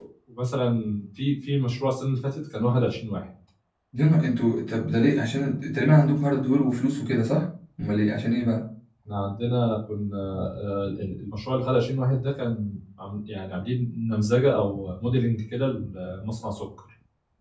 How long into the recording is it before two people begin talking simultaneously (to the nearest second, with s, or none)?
none